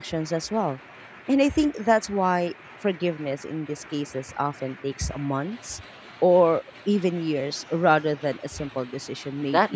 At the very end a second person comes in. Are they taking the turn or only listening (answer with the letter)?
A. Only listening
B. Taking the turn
B